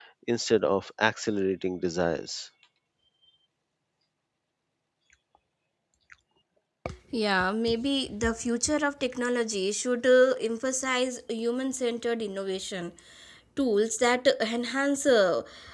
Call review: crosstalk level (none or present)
none